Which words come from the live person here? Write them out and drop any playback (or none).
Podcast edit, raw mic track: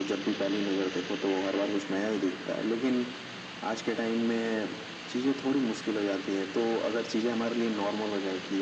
none